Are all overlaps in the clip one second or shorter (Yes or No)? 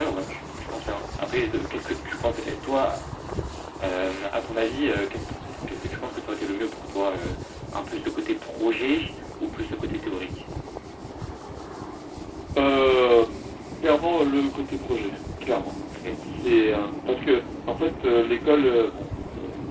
Yes